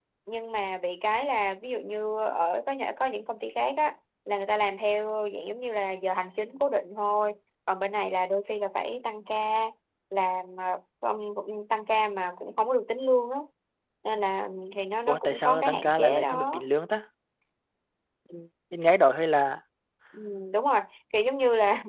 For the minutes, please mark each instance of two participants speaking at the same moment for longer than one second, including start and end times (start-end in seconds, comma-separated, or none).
15.1-16.6